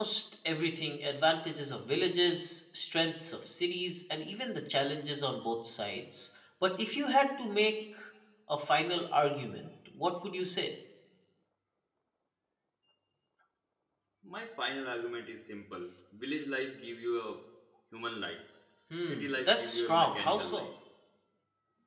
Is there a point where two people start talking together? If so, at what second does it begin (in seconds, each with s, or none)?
19.0 s